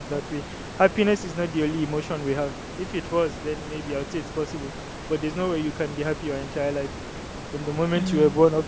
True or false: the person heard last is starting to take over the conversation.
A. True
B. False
B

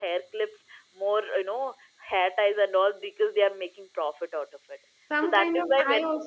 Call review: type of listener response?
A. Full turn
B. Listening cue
A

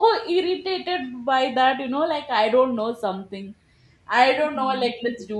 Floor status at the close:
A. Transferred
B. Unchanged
B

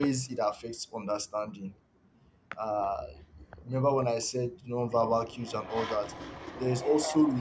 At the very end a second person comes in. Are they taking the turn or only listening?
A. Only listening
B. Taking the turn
A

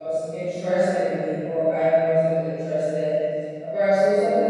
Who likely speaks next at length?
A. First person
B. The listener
A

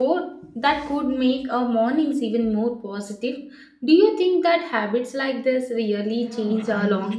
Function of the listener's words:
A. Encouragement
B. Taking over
B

